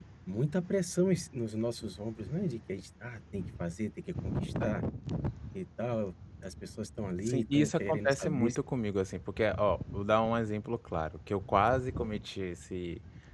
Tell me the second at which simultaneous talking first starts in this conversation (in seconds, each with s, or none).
7.3 s